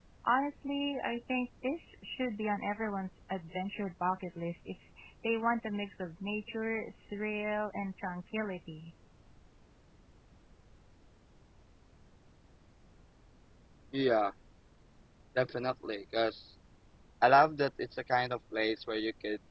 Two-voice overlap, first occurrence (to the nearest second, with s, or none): none